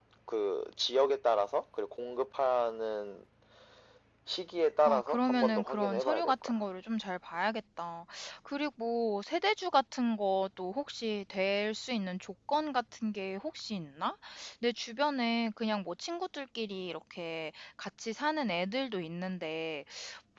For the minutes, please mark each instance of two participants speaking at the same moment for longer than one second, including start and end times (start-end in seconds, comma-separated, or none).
4.8-6.5